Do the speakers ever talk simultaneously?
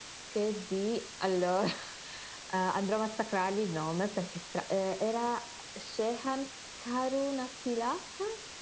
No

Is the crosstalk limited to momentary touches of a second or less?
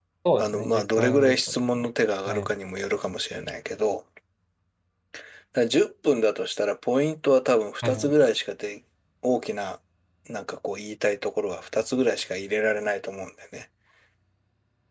No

